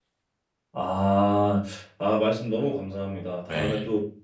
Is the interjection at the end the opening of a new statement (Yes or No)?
No